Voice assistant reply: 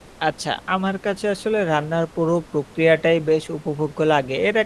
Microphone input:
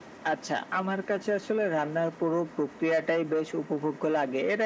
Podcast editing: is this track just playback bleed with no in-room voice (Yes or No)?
Yes